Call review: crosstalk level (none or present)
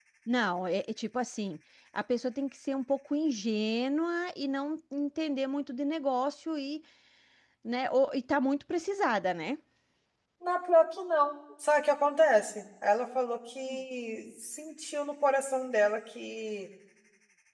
none